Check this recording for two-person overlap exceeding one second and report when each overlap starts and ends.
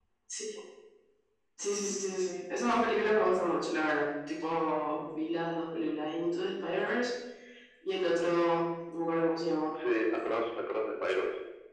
none

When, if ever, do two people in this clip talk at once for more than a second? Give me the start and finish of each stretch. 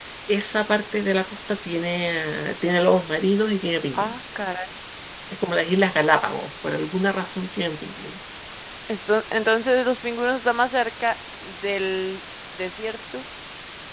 none

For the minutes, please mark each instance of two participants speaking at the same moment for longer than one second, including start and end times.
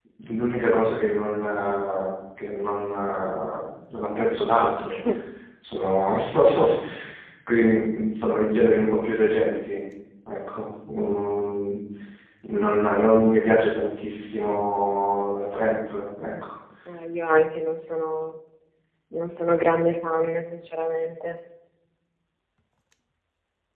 none

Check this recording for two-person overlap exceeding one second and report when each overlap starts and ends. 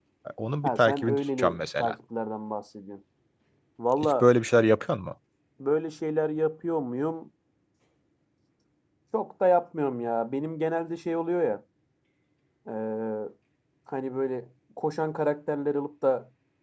0.6-1.9

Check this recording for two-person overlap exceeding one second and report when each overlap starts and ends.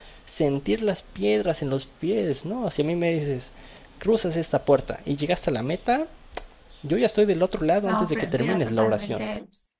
7.8-9.2

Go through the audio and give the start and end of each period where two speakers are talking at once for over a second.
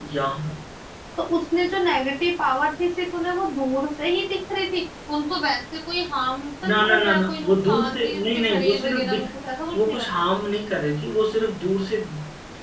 6.7-9.3

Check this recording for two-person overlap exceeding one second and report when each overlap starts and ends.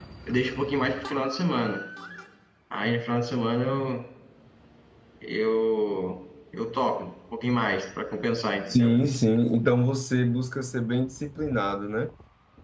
none

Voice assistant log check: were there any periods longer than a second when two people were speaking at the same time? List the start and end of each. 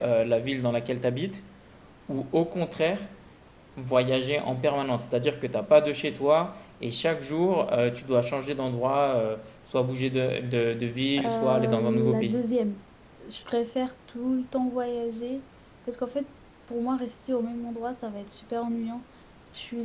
11.2-12.4

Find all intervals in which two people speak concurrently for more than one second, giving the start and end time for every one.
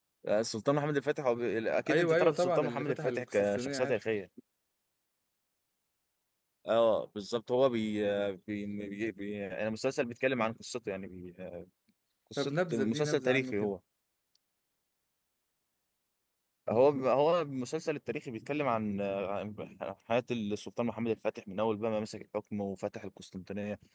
1.9-4.0, 12.4-13.7

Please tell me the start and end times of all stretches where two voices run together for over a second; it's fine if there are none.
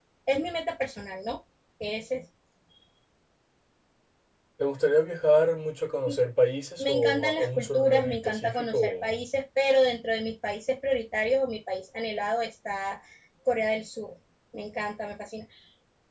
6.8-9.2

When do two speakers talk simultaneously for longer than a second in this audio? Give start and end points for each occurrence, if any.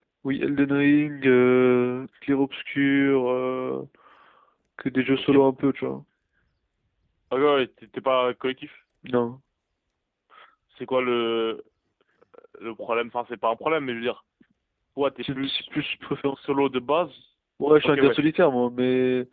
none

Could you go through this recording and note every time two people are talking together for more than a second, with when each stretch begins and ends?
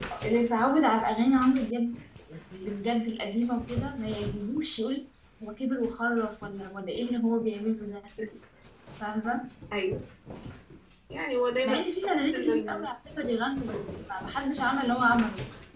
11.6-12.9

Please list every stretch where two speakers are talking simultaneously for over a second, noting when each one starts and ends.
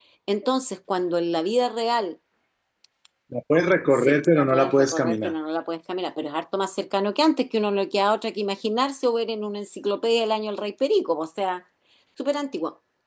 3.9-5.3

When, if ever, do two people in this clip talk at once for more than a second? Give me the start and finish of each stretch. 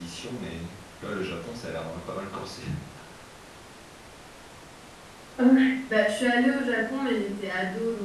none

